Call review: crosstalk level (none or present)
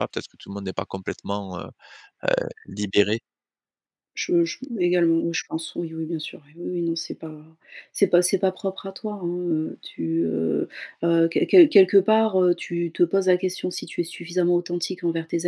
none